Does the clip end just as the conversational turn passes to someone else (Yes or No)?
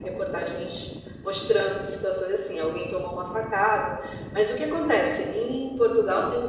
No